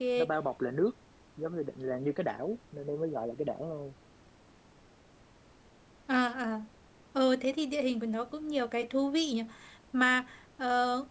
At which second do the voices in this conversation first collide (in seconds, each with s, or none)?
none